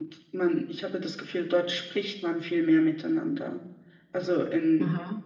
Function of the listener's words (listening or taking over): listening